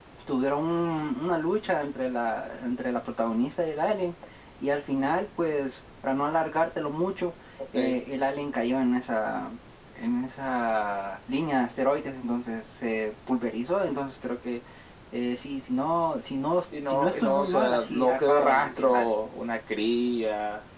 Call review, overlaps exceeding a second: present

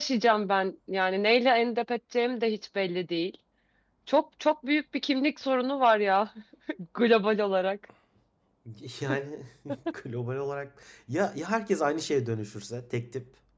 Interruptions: none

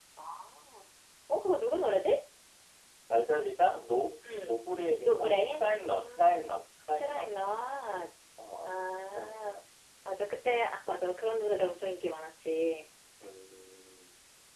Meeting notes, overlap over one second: present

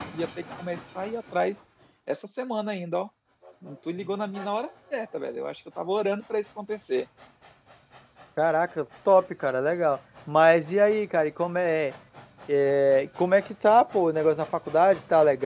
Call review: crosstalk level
none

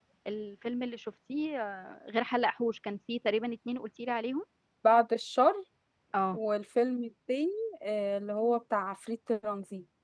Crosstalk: none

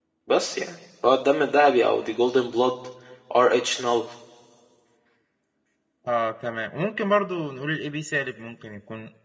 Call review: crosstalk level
none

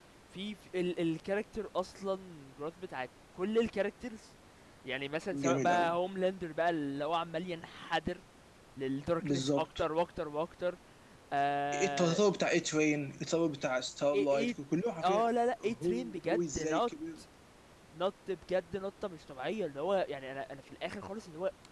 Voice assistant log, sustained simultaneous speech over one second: present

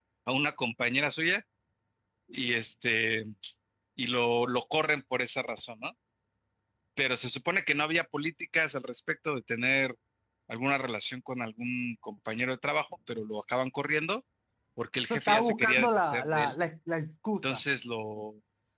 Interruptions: present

